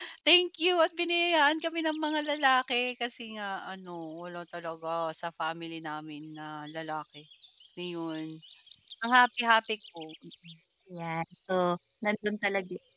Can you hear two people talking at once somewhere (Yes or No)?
No